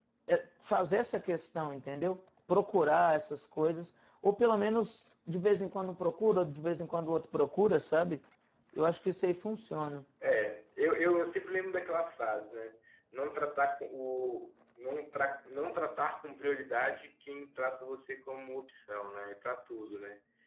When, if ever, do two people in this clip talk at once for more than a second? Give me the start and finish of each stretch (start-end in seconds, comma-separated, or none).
none